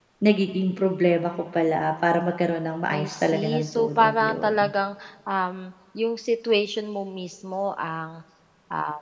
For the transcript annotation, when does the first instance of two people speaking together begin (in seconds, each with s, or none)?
2.9 s